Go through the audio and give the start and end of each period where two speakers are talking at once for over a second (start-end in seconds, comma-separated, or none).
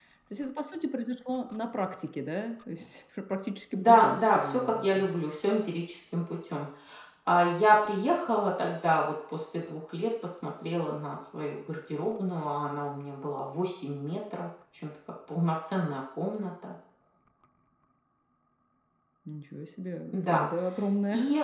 3.7-5.0